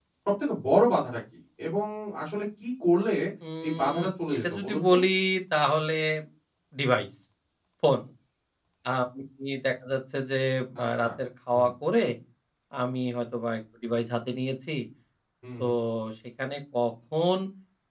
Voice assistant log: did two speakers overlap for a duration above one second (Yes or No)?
Yes